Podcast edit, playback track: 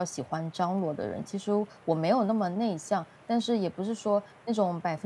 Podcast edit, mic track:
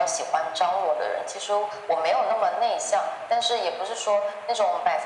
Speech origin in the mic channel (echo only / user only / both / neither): echo only